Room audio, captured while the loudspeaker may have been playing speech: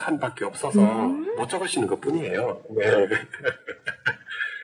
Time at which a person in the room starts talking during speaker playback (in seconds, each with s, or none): 0.7 s